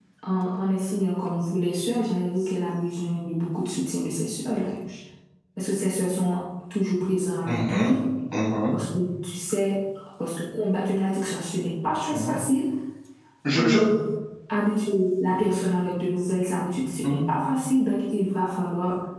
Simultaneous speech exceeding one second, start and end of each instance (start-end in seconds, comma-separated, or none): none